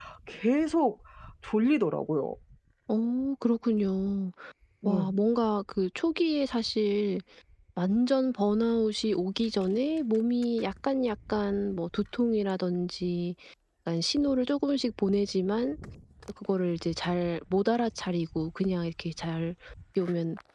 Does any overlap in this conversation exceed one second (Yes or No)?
No